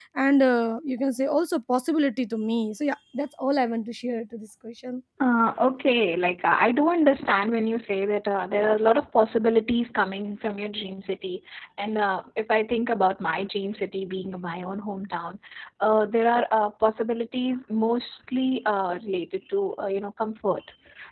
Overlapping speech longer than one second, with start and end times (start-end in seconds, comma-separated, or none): none